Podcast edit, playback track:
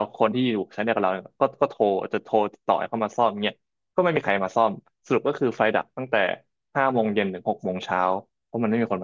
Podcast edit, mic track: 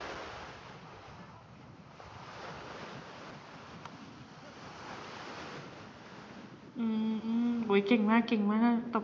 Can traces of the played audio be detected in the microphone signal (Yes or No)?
No